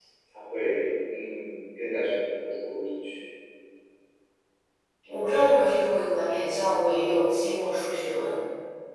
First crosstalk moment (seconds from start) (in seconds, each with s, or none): none